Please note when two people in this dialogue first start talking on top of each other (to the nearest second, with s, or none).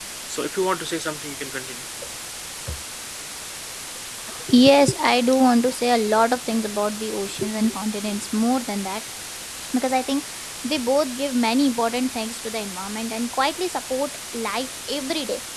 none